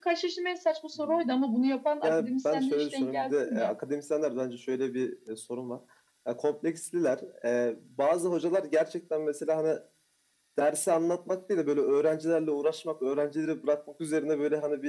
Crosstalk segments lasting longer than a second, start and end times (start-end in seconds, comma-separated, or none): 2.0-3.7